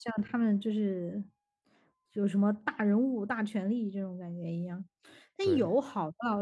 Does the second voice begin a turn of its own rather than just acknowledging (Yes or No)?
No